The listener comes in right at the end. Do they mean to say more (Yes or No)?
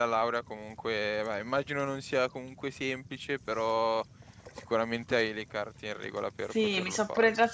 Yes